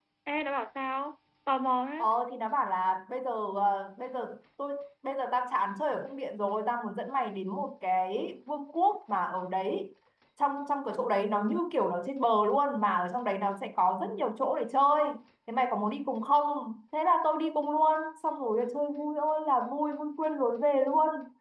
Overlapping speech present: No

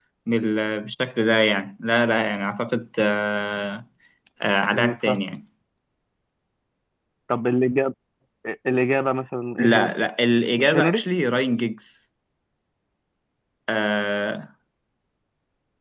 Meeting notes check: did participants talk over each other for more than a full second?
No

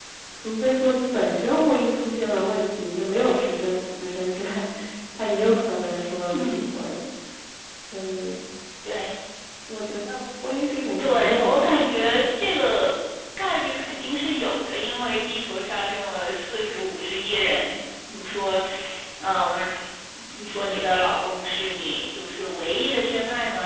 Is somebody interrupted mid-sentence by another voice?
Yes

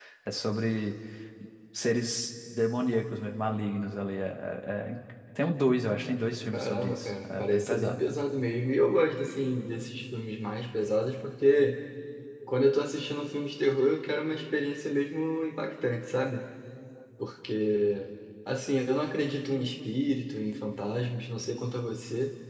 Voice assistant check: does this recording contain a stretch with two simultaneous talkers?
Yes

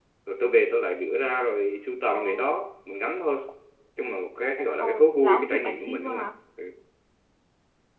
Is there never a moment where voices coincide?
No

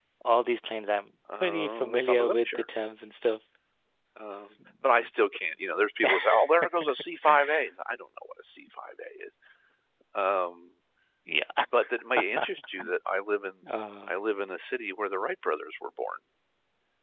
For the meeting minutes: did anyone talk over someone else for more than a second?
Yes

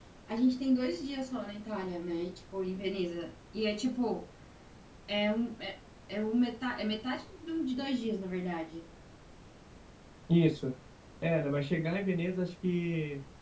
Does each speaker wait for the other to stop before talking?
Yes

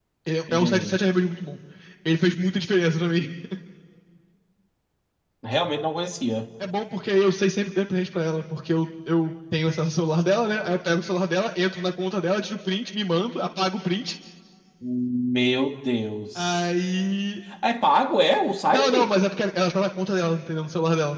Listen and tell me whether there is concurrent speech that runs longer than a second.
No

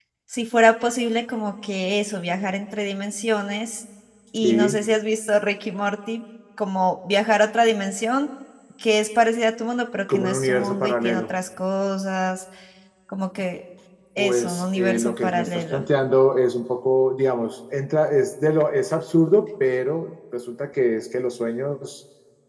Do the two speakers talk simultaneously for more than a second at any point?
Yes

